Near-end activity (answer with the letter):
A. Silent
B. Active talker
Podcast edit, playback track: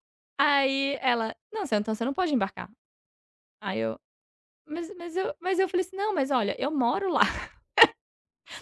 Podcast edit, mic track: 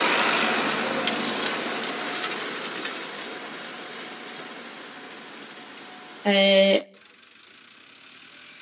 B